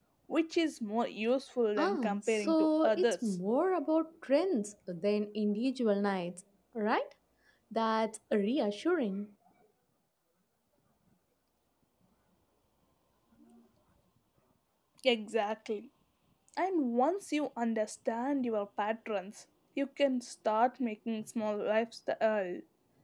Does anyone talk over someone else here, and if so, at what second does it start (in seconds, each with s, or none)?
1.8 s